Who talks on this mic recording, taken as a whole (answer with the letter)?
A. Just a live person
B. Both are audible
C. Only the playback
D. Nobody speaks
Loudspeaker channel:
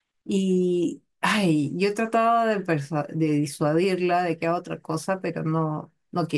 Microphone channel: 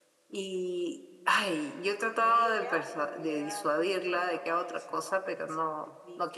B